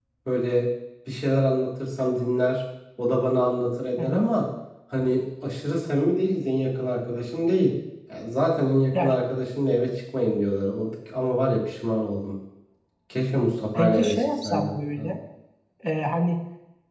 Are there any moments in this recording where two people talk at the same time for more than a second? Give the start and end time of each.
13.8-15.1

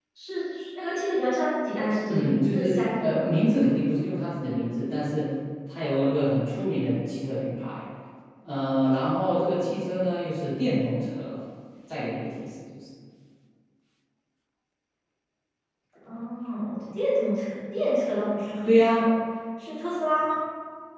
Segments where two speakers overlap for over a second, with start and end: 2.1-3.3

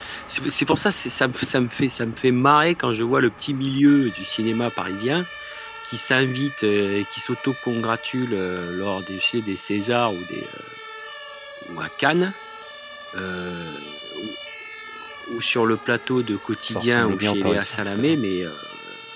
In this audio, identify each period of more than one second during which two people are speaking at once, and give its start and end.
16.6-18.2

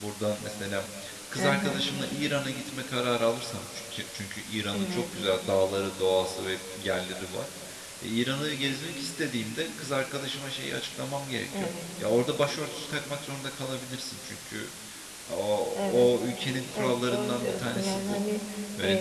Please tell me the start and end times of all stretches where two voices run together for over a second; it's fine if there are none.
16.8-18.2

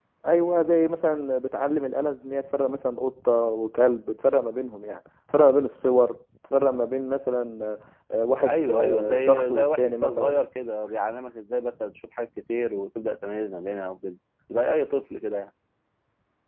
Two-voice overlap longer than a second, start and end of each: 8.5-10.4

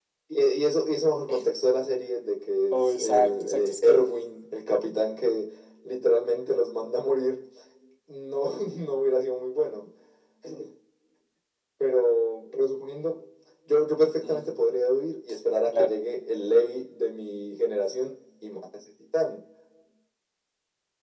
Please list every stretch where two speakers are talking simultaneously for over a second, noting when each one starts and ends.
2.7-4.0

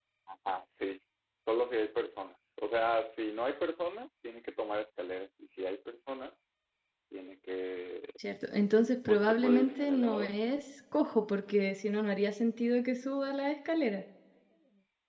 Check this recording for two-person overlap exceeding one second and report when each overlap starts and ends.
9.1-10.3

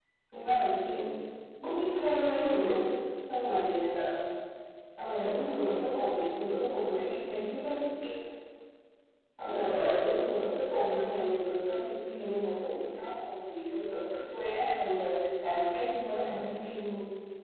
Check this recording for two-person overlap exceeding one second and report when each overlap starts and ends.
9.4-10.8

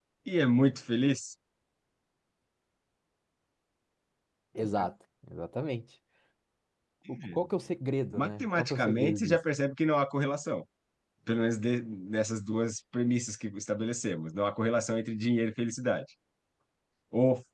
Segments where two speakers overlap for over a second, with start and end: 8.2-9.4

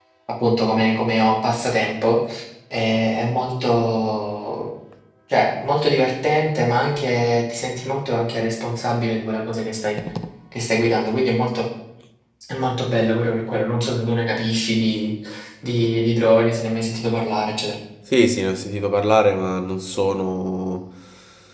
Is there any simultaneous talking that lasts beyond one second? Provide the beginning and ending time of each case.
none

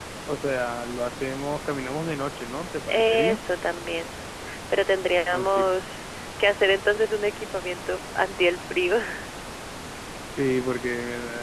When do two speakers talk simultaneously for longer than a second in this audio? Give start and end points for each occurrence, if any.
none

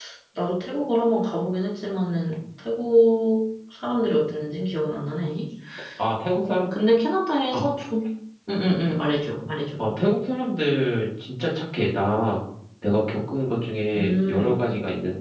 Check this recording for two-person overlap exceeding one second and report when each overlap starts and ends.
none

